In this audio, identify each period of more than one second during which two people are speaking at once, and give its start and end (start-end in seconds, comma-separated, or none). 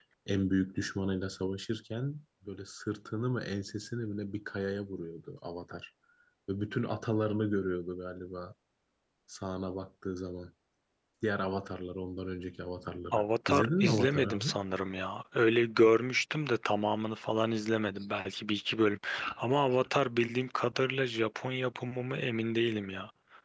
13.1-14.5